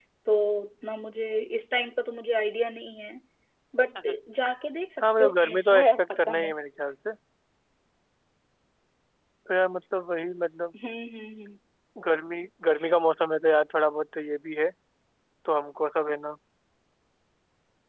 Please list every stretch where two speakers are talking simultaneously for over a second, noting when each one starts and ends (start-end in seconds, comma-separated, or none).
5.0-6.5